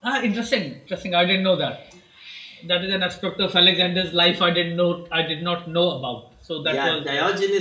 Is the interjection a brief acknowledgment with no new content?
No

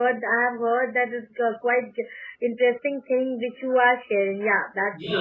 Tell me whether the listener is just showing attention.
No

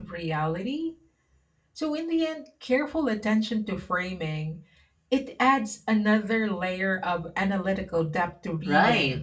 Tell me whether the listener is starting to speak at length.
Yes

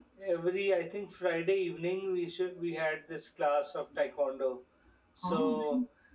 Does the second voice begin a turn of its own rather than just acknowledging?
No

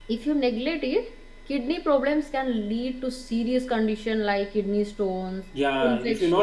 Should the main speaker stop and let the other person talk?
Yes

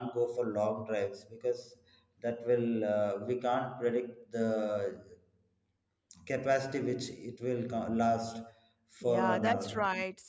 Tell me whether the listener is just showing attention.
No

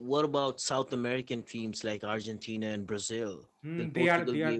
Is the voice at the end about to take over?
Yes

